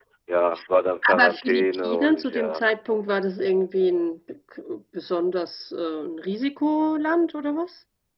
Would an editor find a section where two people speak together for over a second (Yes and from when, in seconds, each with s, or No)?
Yes, from 1.1 s